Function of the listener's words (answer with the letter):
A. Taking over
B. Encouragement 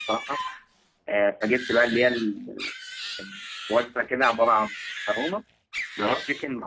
B